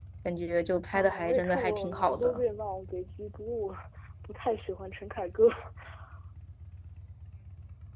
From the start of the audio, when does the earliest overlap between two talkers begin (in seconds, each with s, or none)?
0.9 s